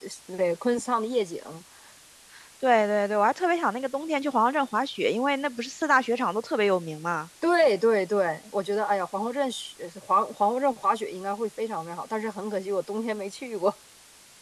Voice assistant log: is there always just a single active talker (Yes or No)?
Yes